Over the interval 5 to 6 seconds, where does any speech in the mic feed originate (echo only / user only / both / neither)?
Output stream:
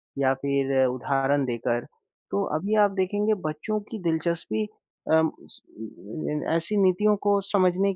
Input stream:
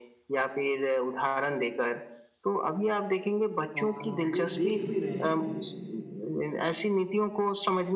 both